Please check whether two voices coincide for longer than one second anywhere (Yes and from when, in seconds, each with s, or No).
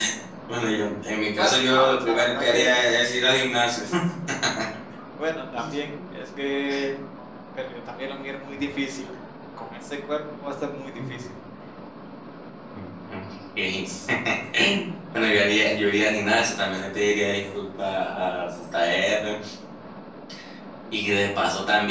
Yes, from 1.4 s